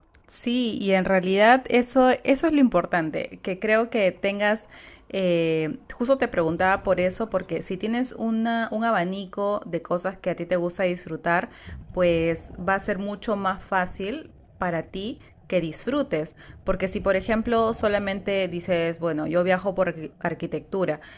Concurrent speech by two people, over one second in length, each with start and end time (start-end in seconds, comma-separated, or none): none